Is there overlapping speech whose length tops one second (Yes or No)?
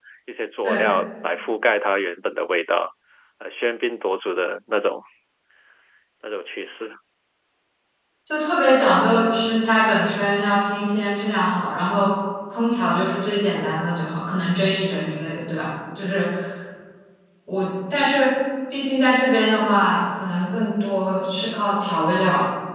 No